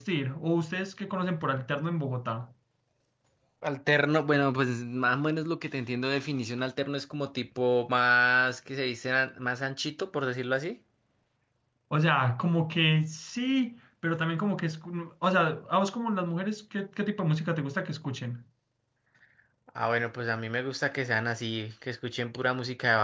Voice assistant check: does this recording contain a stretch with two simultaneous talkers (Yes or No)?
No